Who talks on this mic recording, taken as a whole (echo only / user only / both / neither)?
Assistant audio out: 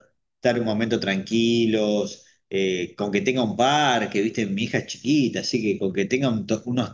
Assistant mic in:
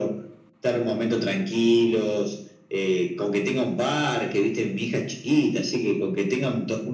echo only